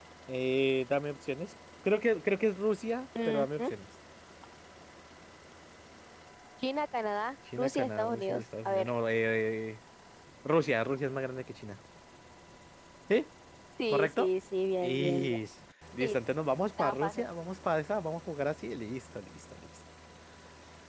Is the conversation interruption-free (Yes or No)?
No